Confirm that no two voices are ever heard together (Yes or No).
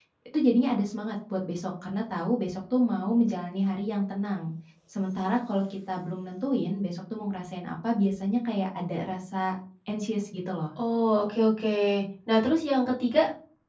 Yes